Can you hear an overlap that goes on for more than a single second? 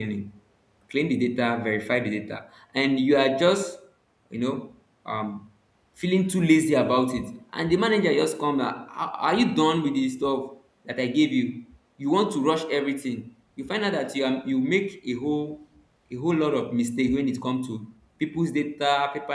No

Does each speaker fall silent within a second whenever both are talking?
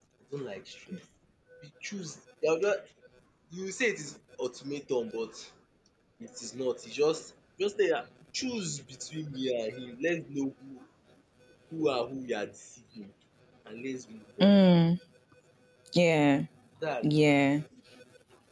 Yes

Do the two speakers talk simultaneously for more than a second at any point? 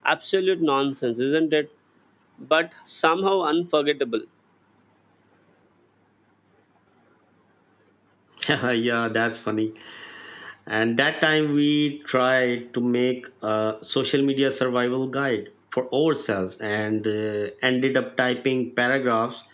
No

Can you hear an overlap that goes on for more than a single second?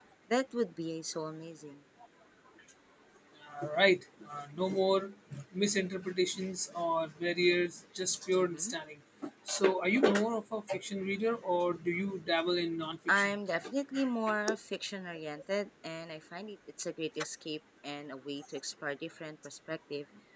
No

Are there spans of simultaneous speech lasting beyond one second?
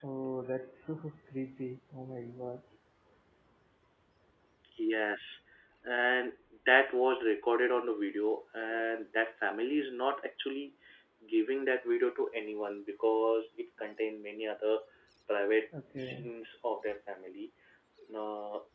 No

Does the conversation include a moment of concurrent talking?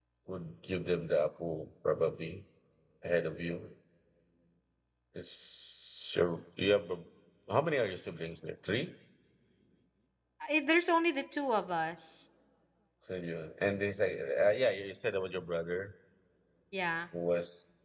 No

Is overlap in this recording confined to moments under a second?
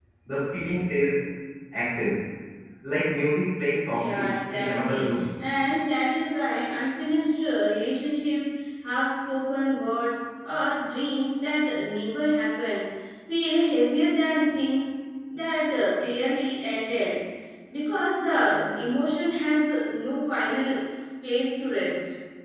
No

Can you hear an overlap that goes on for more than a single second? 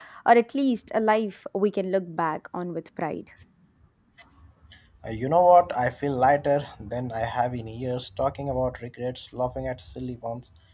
No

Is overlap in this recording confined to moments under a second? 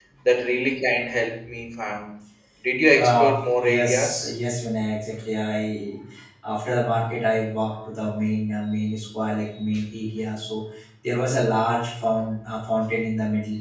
No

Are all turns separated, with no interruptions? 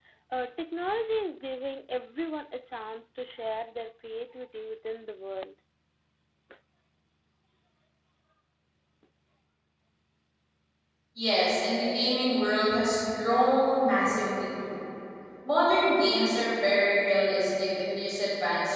Yes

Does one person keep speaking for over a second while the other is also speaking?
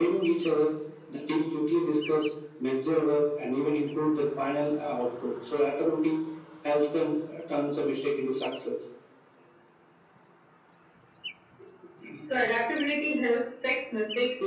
No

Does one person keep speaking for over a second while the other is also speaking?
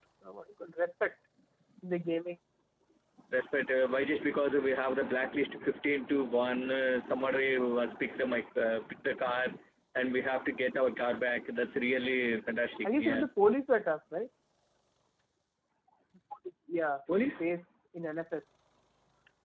No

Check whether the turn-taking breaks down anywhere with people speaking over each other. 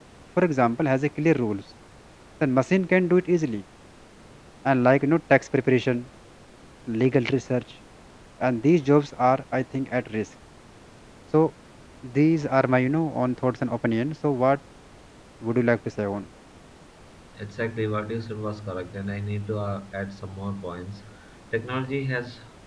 No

